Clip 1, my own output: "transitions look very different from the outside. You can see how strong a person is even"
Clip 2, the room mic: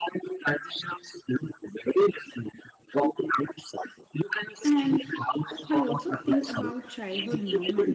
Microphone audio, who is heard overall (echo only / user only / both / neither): both